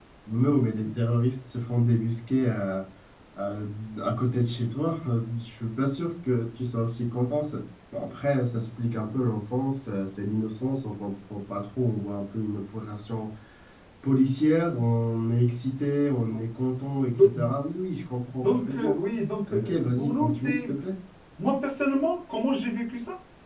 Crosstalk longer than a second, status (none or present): present